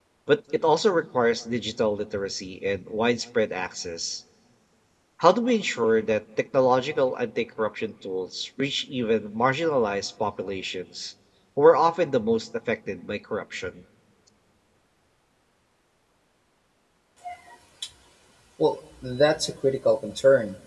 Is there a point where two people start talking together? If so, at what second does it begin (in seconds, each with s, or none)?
none